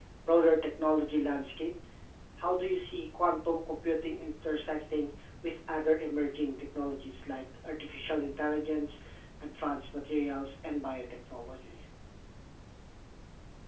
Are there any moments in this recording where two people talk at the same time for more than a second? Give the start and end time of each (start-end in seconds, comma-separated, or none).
none